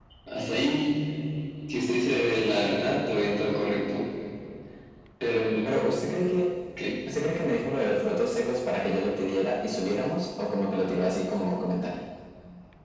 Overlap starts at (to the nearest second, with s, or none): none